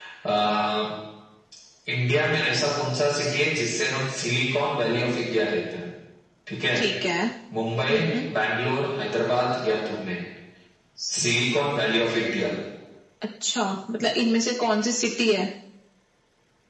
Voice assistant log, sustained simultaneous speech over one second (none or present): none